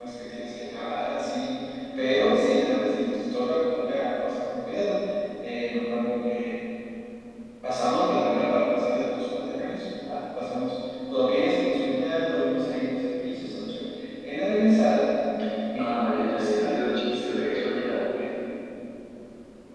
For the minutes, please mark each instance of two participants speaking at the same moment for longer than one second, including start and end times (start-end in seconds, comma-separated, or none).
15.8-18.0